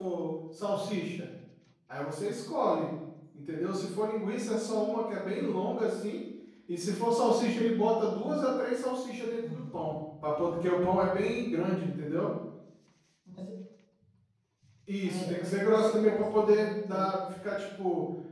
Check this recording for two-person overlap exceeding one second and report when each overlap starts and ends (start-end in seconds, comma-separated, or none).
4.3-5.6, 15.1-17.1